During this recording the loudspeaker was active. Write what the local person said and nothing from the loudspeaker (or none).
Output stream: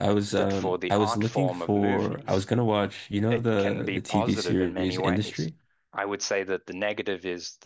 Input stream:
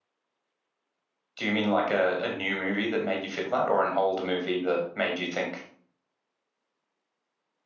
do you mean like a, a new movie that made you feel that, or an old movie that made you think,